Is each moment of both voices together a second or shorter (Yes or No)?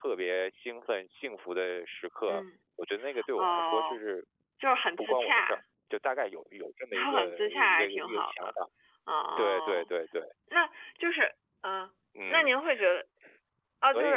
No